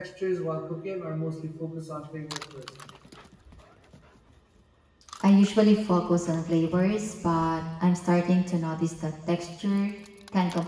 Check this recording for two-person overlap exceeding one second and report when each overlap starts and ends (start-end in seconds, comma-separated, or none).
none